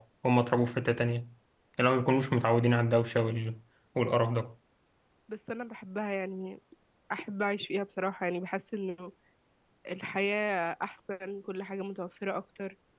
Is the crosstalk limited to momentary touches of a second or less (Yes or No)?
Yes